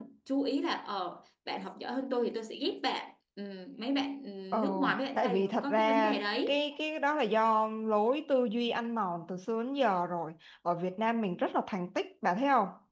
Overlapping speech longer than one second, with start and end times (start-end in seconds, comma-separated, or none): 4.5-6.6